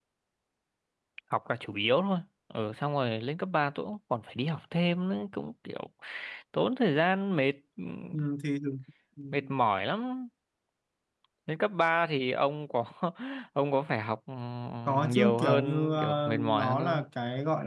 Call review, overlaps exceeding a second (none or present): present